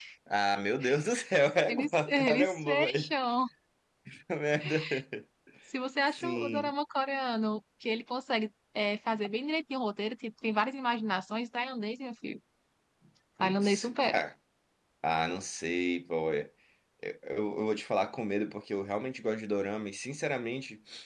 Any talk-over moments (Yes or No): Yes